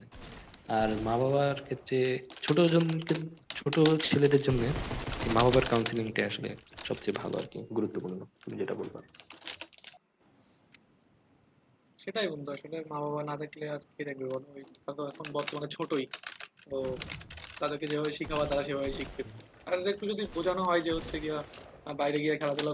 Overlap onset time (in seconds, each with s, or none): none